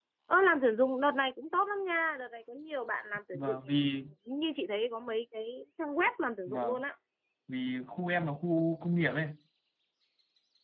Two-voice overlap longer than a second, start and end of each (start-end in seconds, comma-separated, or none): none